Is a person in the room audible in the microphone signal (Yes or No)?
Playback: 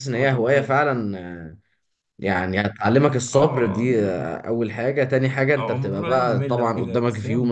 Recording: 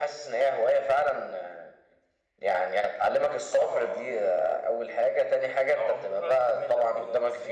No